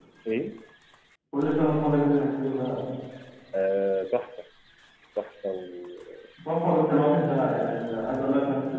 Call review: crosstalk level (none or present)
none